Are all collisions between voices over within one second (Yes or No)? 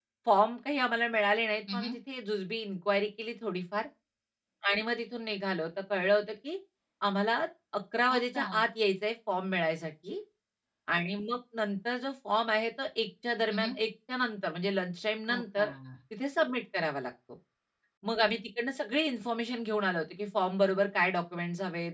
Yes